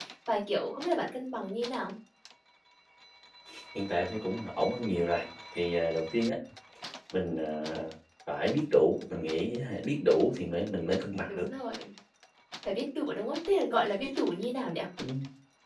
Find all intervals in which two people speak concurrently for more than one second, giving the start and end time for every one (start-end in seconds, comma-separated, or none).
none